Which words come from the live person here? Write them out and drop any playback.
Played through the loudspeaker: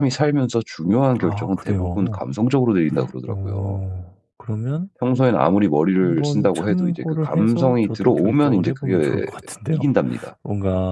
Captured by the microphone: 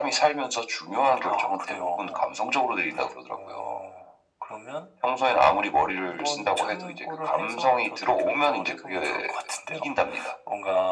none

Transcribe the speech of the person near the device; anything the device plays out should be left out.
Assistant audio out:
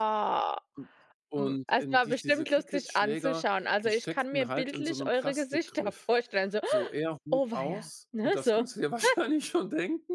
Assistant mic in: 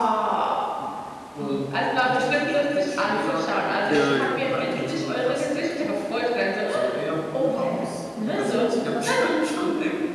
Ja, ja, ja.

